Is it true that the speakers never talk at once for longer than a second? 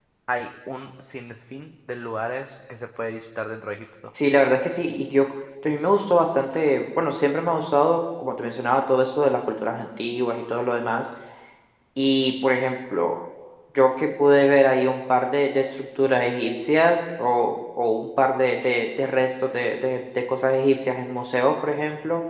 Yes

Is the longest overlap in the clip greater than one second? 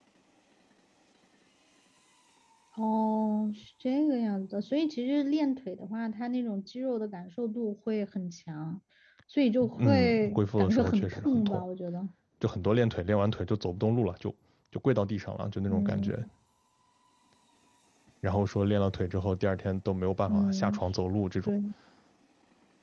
Yes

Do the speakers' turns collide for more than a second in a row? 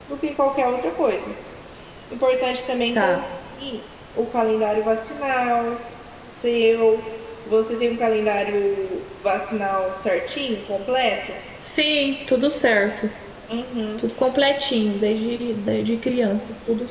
No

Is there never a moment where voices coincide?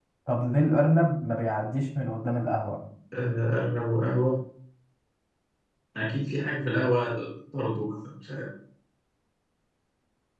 Yes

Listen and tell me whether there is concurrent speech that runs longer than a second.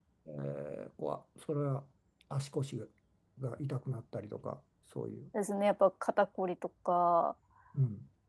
No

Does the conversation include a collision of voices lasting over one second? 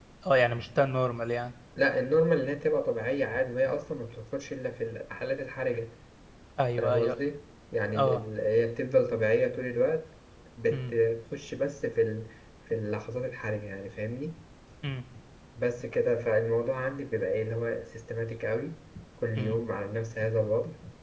No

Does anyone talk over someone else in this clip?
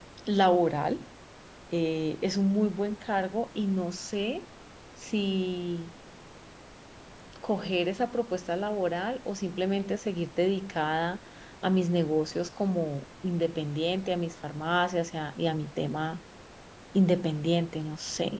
No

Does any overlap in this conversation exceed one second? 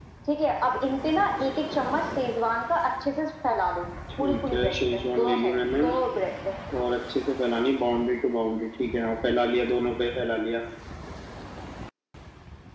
Yes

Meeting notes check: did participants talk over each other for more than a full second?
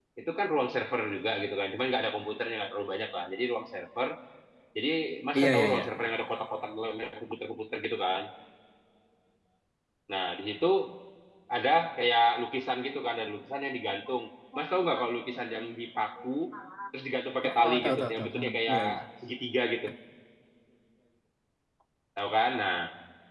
Yes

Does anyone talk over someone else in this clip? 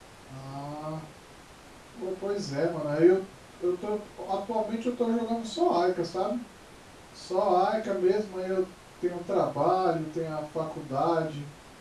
No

